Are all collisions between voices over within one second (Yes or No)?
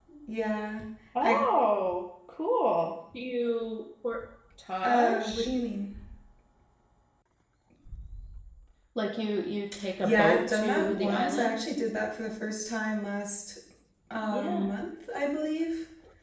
No